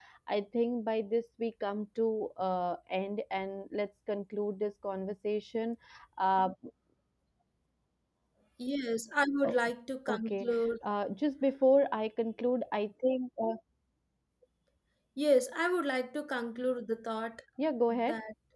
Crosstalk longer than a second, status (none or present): none